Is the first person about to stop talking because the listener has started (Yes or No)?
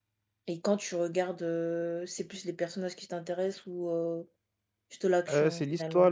Yes